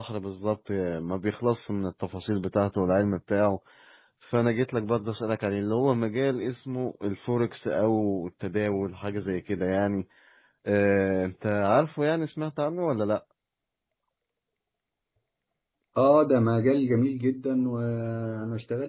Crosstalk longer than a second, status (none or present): none